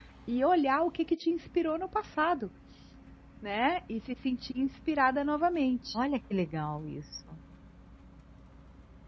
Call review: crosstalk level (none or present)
none